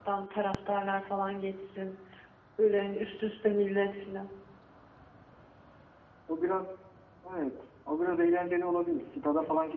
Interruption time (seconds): none

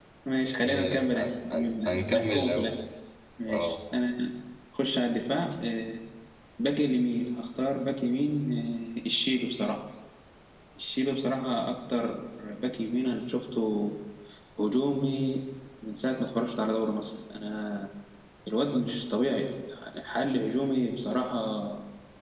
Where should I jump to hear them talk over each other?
0.7 s

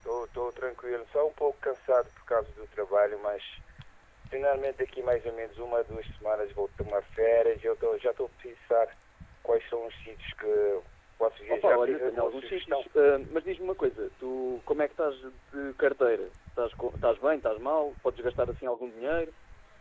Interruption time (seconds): 11.5 s

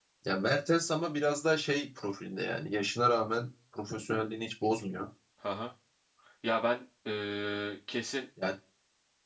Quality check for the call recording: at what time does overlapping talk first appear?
none

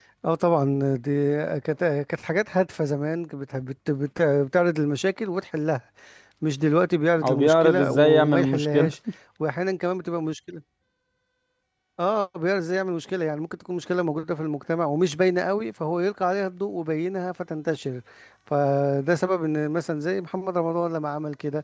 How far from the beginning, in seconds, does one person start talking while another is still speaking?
7.2 s

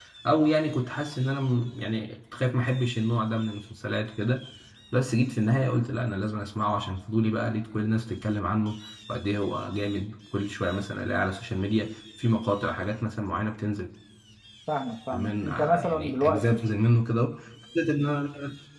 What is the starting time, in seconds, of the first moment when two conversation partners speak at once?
15.1 s

